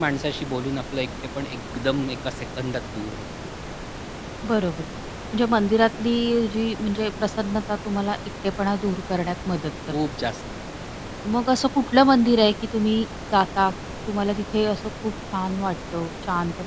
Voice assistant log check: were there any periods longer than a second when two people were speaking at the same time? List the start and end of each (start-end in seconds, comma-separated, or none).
none